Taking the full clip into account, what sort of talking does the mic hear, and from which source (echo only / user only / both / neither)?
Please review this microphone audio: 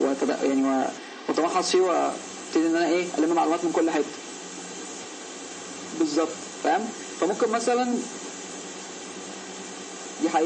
echo only